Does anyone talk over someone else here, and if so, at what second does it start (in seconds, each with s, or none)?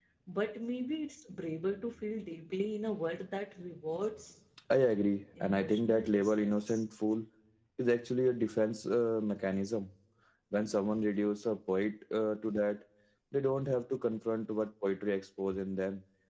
5.4 s